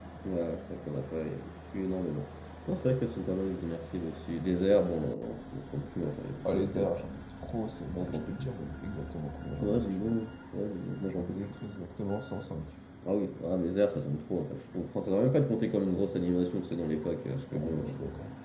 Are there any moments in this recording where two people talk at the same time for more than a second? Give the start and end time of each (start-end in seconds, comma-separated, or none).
none